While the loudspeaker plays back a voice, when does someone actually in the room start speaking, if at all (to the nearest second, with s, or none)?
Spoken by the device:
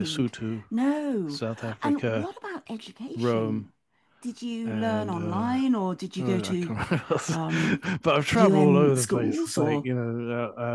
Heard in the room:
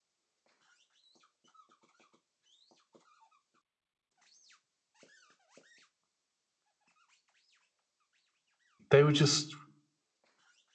9 s